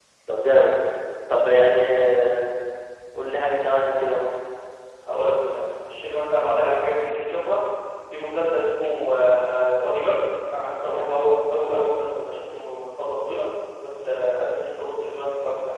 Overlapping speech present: No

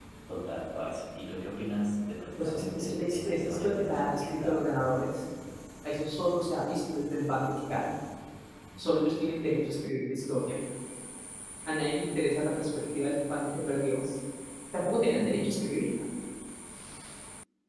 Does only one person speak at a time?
No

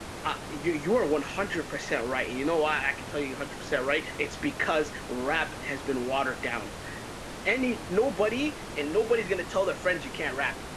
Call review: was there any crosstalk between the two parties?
No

